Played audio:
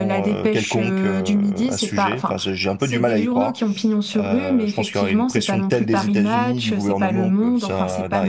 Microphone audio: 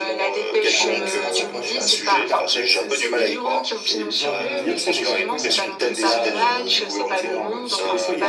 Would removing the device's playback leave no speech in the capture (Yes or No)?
No